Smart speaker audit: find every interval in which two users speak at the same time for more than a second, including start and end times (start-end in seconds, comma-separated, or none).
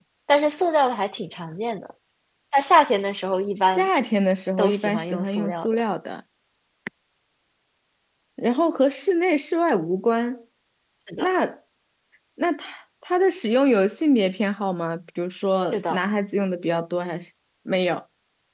4.6-5.8